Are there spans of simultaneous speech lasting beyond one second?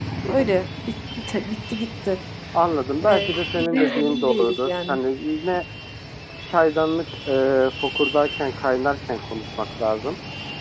Yes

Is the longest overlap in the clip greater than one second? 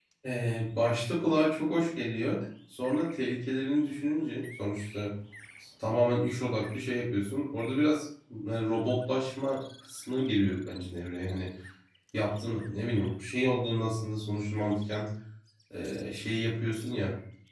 No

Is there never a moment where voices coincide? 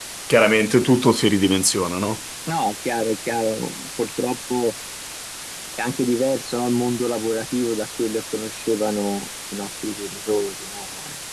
Yes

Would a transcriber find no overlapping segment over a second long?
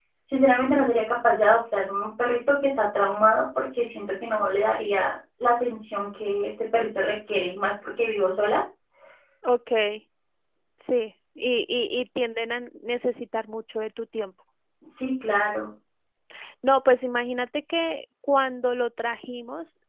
Yes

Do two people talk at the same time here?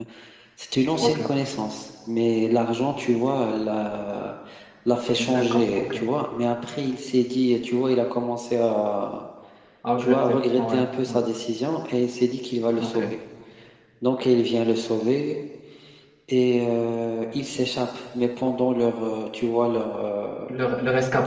Yes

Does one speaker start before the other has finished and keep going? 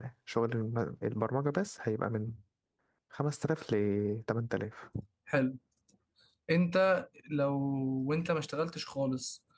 No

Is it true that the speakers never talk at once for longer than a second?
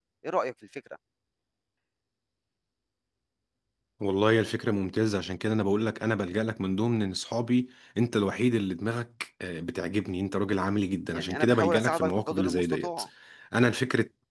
No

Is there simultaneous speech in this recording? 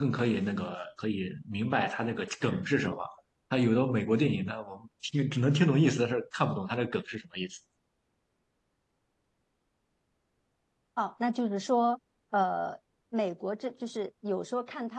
No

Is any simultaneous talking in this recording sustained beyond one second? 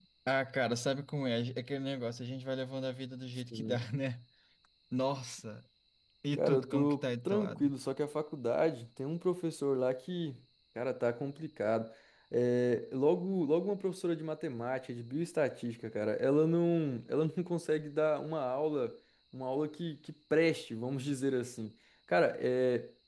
Yes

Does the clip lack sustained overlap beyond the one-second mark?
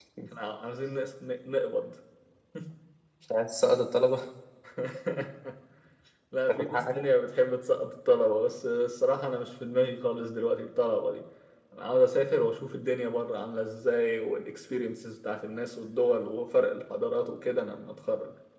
Yes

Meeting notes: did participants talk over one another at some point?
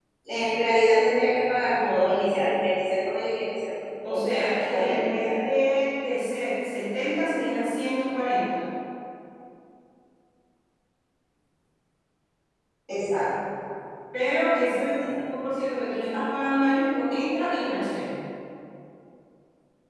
Yes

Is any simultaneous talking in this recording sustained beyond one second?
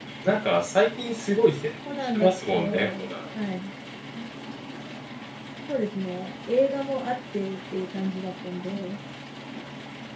Yes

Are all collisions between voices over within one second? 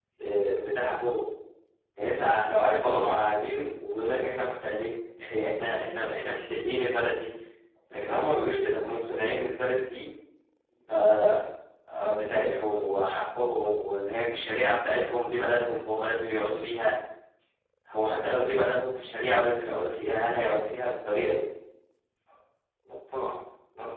Yes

